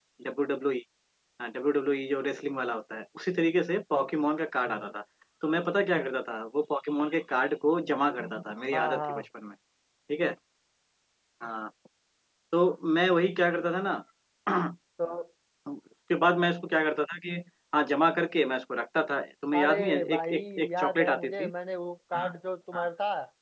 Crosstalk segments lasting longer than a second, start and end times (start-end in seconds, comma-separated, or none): 19.6-21.5